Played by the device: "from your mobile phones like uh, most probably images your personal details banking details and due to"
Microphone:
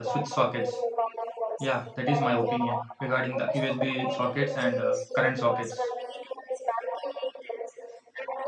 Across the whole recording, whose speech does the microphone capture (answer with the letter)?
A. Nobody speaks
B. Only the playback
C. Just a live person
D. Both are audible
D